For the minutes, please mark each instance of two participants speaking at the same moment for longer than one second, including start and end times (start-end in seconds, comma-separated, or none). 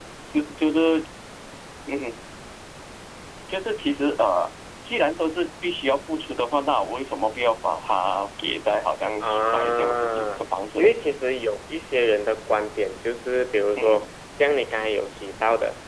9.2-10.9